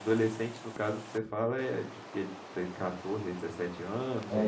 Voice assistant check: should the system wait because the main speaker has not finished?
No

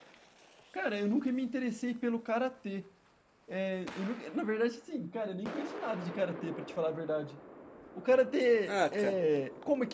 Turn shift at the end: No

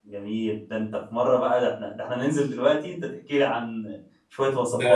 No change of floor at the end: No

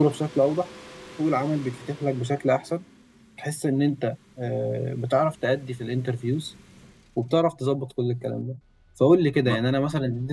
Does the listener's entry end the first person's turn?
No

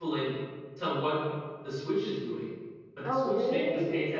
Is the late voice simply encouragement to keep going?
Yes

